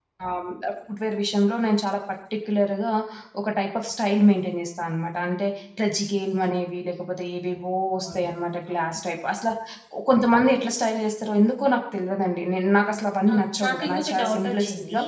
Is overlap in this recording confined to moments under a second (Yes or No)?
No